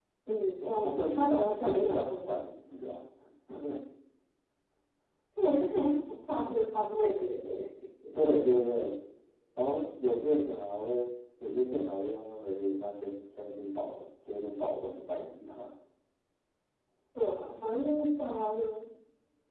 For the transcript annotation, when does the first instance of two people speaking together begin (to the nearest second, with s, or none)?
1 s